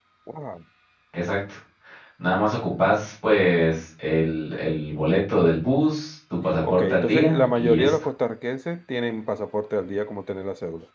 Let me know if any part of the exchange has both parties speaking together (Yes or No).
Yes